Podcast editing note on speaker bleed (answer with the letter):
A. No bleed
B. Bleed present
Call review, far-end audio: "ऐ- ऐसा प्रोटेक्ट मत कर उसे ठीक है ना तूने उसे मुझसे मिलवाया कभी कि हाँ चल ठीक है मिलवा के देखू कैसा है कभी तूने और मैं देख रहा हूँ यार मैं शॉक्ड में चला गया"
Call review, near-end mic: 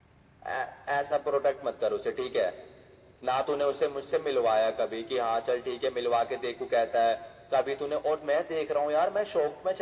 B